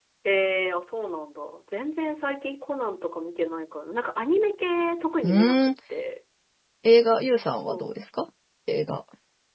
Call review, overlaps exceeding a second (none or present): none